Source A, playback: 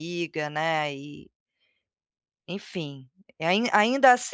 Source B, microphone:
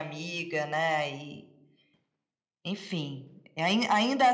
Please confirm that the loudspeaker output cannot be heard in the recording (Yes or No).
No